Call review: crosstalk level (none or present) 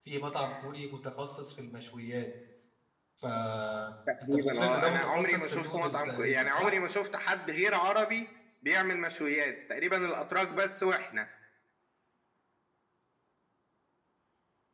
present